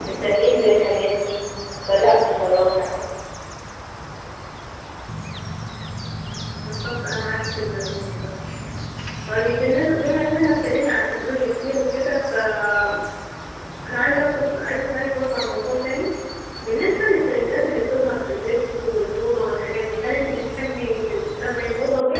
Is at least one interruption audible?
No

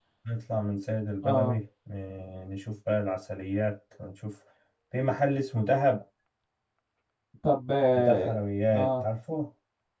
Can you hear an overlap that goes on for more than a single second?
No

